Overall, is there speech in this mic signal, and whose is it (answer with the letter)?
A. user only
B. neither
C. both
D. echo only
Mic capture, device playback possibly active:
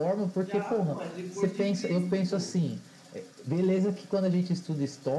C